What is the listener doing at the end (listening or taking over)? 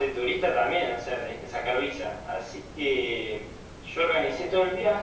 listening